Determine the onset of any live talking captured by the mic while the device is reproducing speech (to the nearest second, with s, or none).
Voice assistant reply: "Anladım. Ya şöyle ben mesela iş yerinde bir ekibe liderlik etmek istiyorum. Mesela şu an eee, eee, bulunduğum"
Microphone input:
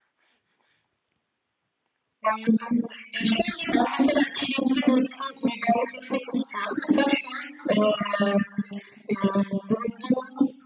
none